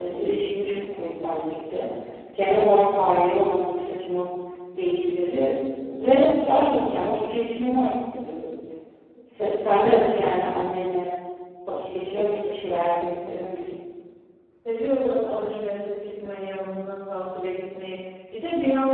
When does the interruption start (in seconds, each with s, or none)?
none